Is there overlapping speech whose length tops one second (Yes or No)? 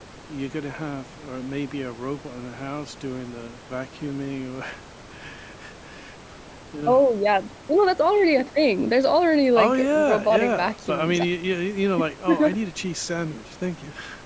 Yes